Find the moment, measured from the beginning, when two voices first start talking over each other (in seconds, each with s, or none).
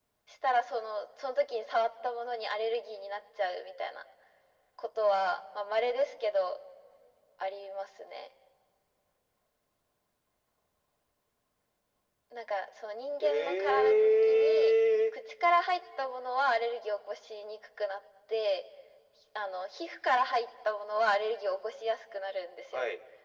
13.2 s